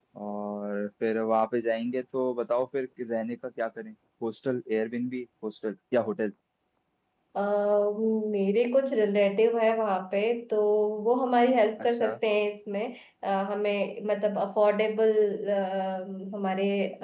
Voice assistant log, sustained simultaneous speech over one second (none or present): none